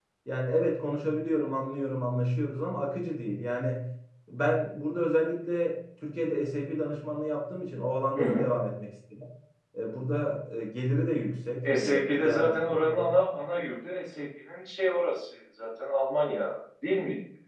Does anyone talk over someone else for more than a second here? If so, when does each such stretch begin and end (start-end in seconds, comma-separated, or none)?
11.8-13.1